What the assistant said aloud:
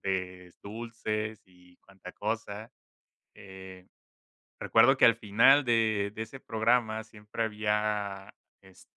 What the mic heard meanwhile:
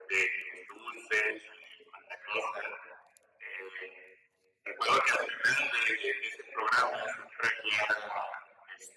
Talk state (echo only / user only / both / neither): echo only